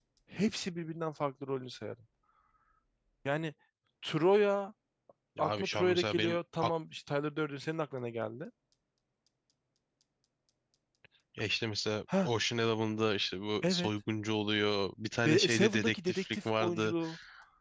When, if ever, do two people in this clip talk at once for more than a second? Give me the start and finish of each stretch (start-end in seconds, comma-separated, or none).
5.4-6.7, 15.2-16.9